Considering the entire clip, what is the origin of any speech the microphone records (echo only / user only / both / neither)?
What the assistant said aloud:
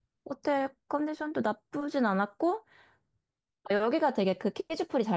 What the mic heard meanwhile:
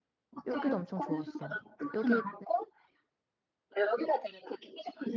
both